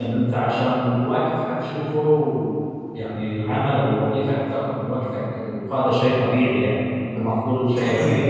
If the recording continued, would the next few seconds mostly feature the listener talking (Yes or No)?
No